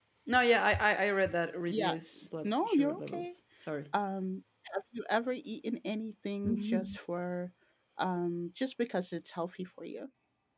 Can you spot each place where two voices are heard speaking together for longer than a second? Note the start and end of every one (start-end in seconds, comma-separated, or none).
1.7-3.3